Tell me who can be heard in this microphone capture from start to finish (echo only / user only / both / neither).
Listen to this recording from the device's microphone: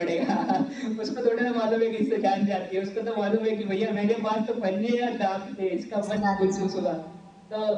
both